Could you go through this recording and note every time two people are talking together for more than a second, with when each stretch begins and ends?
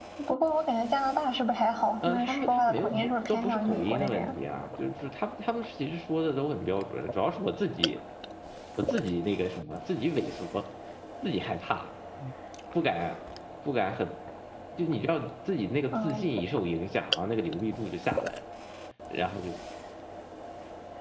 2.0-4.3

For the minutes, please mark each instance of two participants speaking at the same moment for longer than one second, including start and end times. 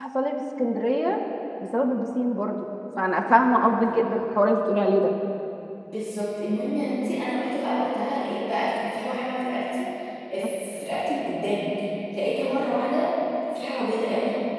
none

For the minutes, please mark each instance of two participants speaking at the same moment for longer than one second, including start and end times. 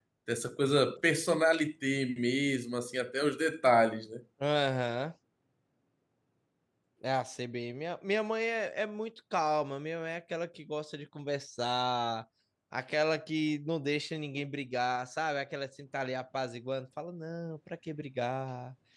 none

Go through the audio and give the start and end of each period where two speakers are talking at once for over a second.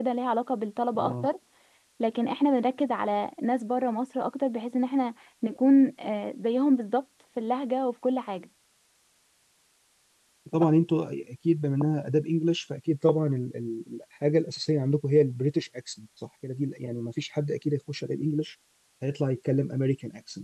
none

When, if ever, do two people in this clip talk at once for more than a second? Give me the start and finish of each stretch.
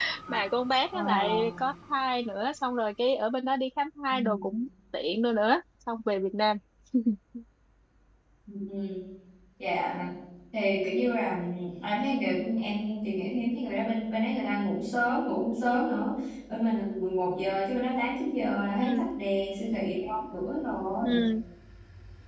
none

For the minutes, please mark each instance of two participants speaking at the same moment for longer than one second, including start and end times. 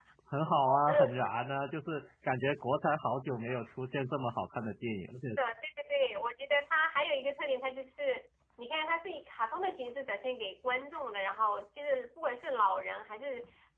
none

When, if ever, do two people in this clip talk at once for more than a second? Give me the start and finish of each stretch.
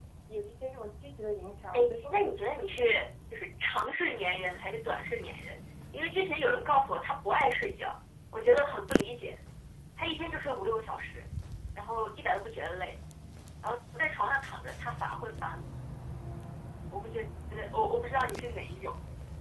1.7-3.0

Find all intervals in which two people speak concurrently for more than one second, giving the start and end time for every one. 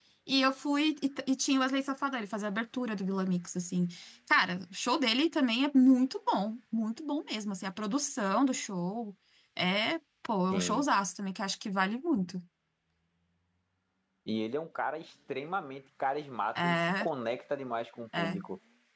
none

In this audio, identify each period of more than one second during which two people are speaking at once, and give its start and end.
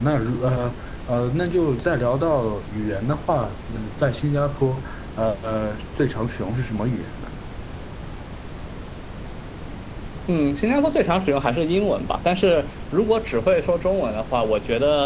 none

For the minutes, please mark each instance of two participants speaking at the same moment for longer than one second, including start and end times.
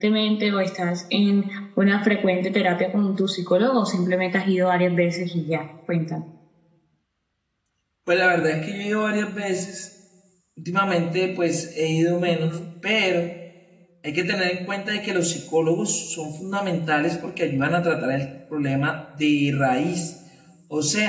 none

